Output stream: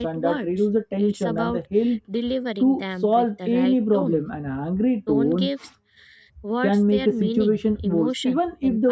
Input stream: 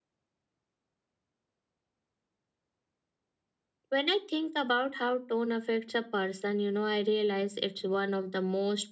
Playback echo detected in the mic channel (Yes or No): No